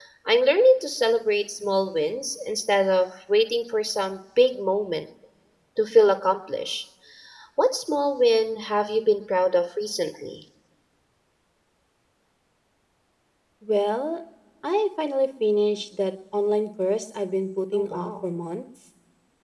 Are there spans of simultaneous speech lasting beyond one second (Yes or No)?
No